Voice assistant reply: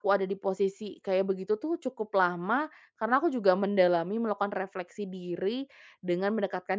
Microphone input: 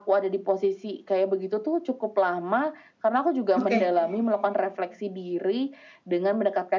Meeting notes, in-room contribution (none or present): present